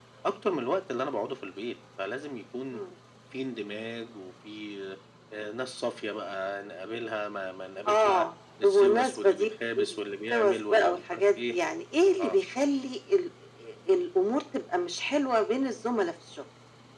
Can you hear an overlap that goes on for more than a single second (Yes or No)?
Yes